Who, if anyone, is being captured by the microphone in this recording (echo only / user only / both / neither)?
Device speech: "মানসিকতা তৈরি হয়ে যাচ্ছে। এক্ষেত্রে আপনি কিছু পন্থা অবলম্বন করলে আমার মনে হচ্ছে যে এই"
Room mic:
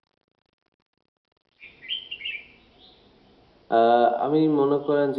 user only